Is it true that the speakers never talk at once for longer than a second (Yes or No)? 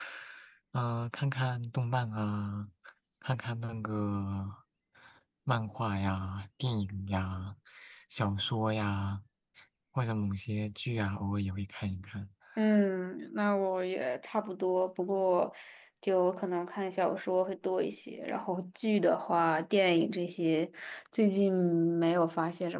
Yes